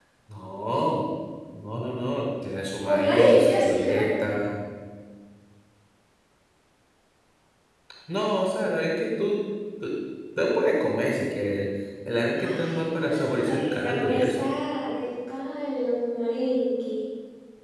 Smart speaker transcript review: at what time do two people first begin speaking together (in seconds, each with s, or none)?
2.8 s